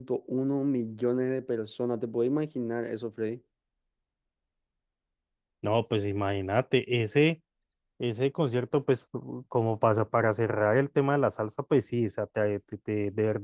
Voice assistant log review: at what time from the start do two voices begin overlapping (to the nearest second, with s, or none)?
none